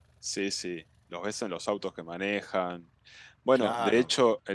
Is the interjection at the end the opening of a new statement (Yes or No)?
No